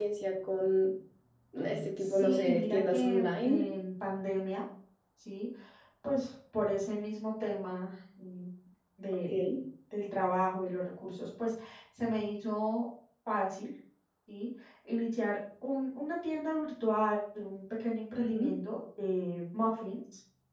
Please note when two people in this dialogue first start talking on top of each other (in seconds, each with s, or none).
2.0 s